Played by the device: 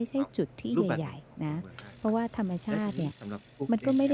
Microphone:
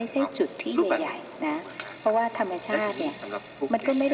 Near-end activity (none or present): none